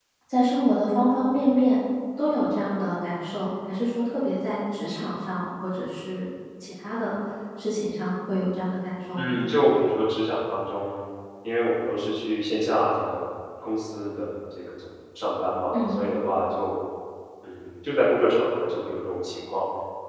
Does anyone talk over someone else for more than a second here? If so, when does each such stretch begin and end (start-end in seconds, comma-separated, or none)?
none